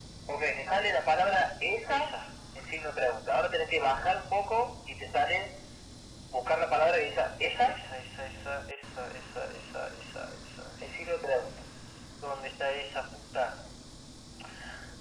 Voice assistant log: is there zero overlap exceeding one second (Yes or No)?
Yes